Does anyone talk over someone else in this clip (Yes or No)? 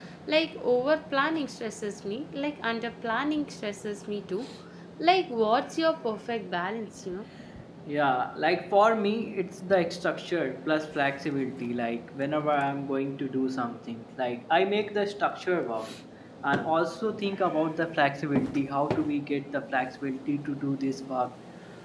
No